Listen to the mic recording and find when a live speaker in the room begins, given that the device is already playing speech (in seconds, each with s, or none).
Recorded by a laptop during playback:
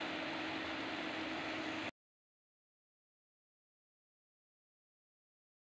none